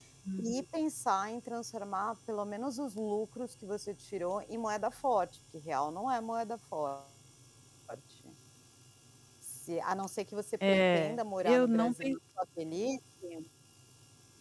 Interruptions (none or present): present